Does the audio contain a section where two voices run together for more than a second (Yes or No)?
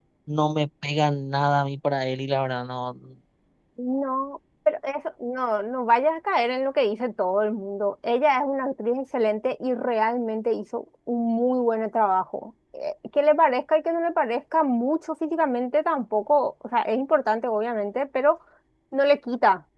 No